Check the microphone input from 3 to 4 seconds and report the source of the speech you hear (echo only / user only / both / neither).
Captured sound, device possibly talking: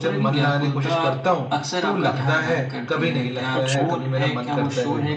both